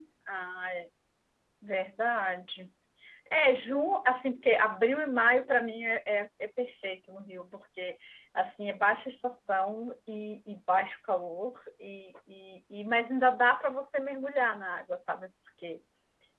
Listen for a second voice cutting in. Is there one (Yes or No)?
No